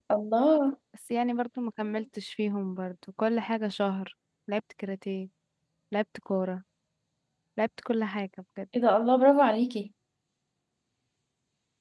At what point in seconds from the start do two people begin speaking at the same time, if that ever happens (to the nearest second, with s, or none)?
none